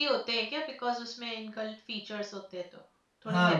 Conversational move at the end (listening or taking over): taking over